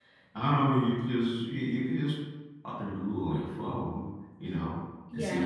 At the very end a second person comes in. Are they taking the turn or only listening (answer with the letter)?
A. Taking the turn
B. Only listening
A